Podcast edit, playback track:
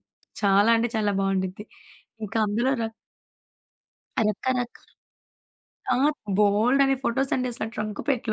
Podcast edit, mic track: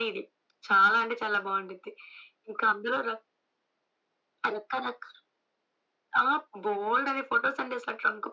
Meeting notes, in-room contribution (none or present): none